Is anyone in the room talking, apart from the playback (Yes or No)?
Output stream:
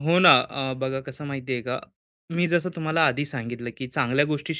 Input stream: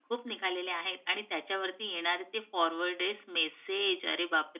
Yes